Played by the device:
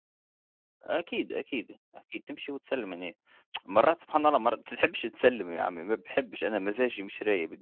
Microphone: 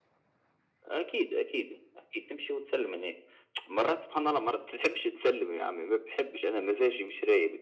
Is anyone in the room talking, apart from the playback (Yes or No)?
No